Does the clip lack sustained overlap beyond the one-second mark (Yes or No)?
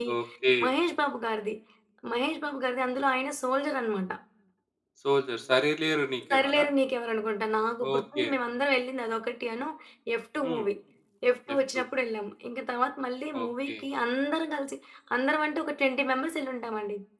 Yes